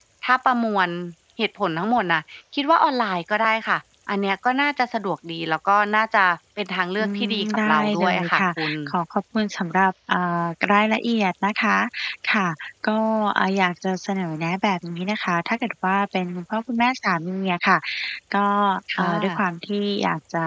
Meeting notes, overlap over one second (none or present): present